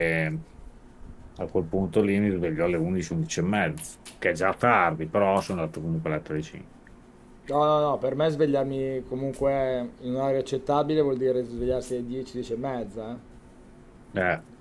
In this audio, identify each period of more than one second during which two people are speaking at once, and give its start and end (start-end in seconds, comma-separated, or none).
none